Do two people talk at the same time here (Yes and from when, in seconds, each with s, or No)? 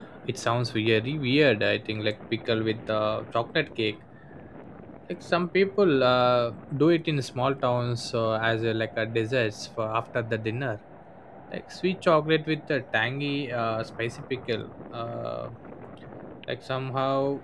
No